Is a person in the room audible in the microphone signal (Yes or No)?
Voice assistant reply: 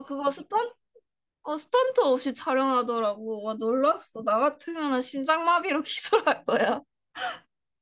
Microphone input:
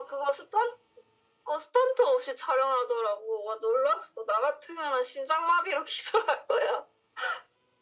No